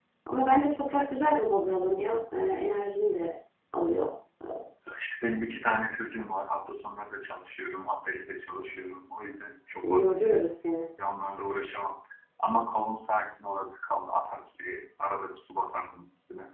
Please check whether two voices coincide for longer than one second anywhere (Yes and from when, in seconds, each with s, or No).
No